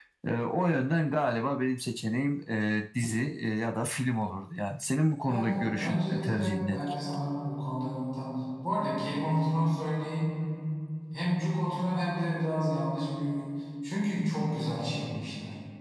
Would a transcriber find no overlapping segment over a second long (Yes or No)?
No